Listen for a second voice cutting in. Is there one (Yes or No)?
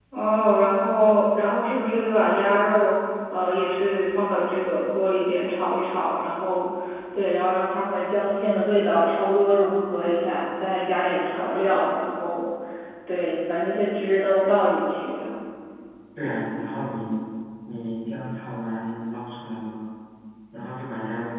No